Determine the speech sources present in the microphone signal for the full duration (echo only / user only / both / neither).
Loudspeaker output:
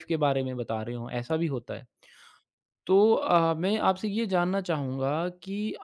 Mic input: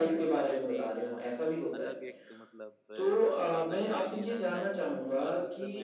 both